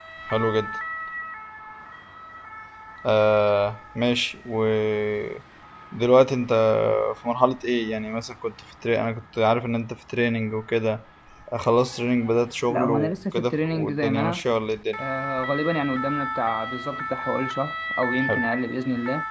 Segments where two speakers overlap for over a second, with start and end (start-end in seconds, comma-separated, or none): 12.7-14.4